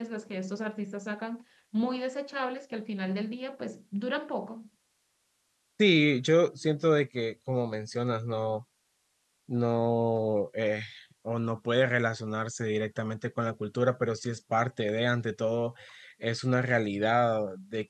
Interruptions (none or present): none